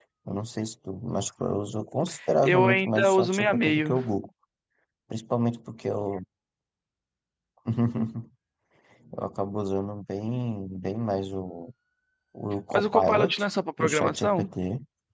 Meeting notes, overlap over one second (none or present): present